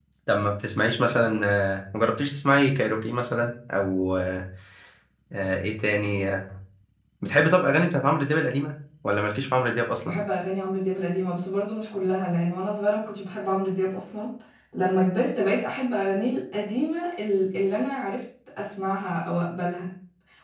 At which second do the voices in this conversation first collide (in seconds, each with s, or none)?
none